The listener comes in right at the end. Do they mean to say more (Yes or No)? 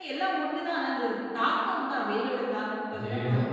Yes